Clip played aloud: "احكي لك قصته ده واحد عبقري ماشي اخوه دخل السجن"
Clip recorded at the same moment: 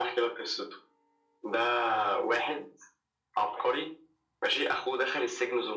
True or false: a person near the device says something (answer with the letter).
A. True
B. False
B